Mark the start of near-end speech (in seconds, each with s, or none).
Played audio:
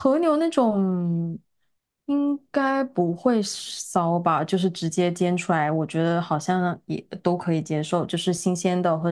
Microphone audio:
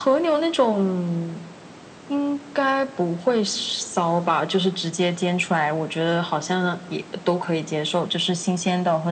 none